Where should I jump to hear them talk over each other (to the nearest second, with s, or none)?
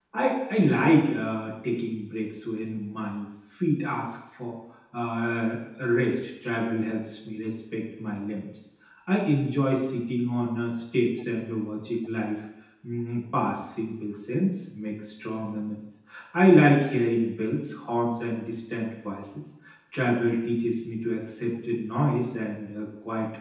none